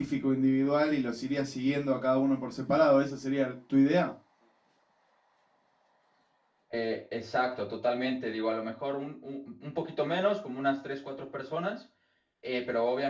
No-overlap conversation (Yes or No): Yes